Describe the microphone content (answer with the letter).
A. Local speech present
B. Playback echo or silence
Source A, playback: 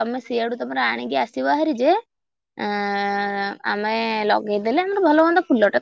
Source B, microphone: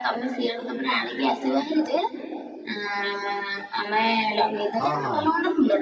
A